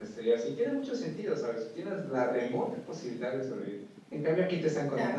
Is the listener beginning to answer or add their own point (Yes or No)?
No